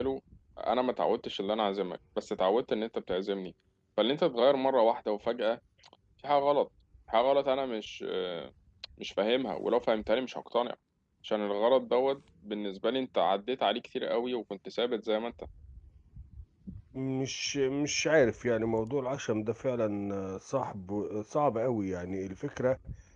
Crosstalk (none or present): none